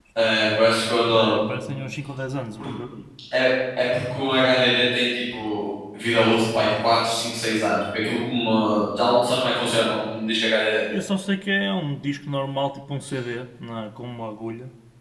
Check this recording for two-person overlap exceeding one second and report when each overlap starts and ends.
none

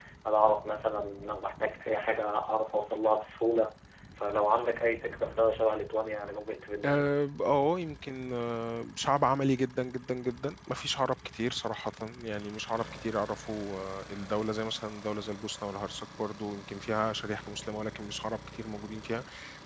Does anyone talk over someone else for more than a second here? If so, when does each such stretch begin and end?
none

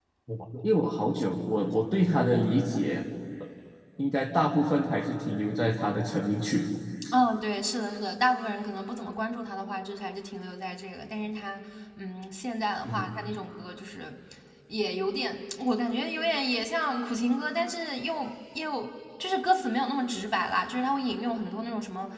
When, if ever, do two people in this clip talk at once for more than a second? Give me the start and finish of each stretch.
none

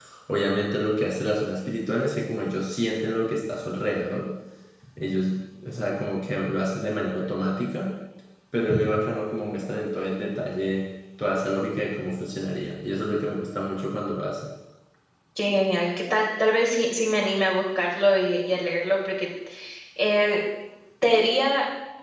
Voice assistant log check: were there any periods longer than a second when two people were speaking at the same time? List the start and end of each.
none

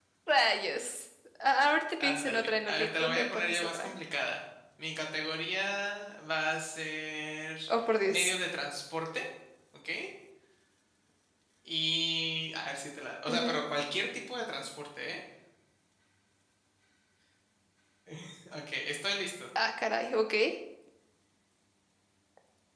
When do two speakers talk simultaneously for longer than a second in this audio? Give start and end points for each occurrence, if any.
2.0-3.9

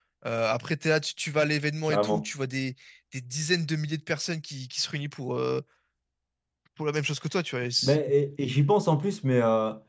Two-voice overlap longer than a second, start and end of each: none

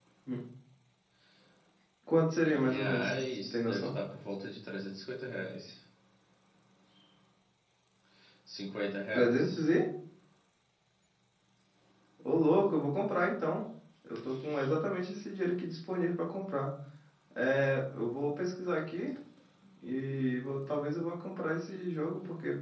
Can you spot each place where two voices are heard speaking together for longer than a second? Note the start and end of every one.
2.4-4.0

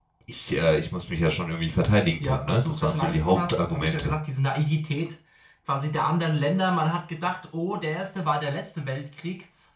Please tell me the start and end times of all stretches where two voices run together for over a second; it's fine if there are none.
2.2-4.1

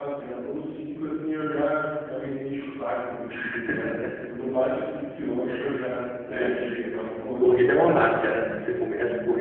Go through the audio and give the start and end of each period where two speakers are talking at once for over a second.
none

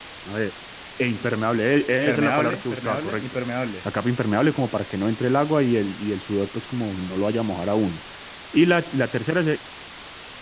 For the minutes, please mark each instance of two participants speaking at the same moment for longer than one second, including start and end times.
2.1-3.4

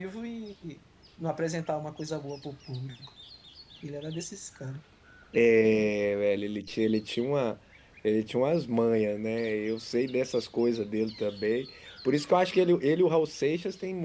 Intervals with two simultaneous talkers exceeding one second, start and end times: none

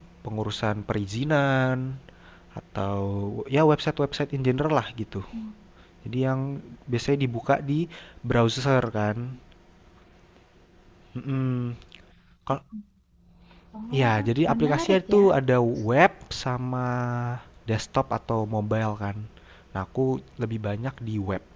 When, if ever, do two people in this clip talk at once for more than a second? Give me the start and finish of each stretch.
14.0-15.3

